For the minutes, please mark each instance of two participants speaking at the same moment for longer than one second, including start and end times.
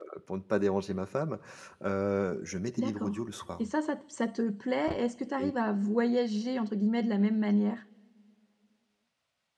none

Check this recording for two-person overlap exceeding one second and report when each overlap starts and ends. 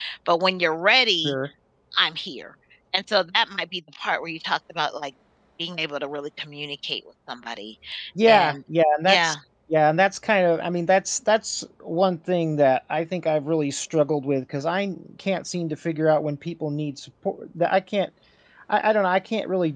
none

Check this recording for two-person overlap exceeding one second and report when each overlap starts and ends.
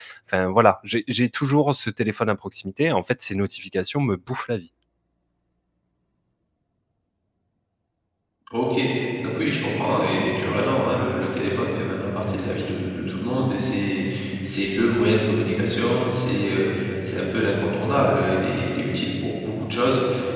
none

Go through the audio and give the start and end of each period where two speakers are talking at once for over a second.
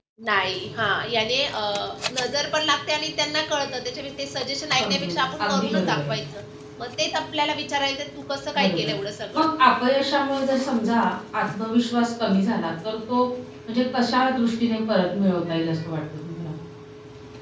4.8-6.1

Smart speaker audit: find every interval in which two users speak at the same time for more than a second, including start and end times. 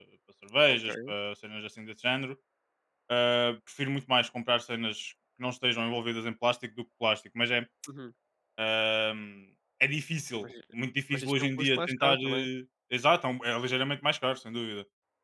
11.1-12.4

